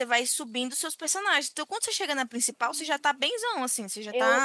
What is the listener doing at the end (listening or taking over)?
taking over